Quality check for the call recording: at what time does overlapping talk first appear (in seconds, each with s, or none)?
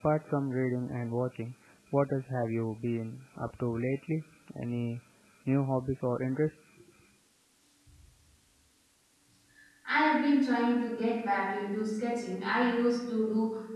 none